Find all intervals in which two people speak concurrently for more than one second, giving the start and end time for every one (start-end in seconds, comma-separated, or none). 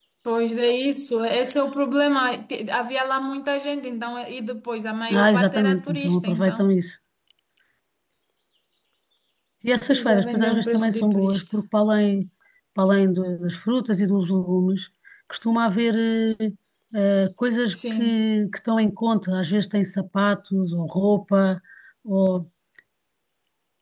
5.1-6.6, 9.9-11.4